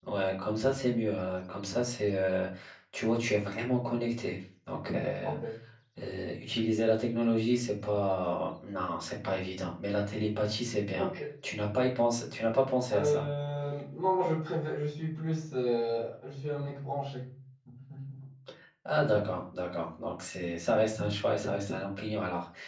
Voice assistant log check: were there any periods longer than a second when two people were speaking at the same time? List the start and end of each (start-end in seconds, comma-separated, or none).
none